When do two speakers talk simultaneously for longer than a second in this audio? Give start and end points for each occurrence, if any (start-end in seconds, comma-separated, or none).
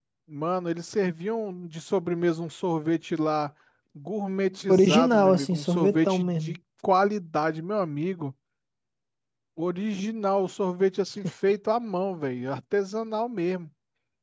4.7-6.6